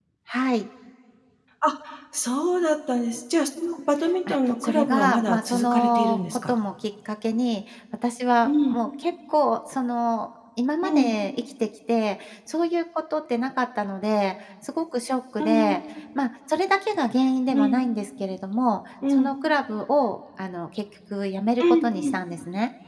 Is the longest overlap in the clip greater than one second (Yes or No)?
Yes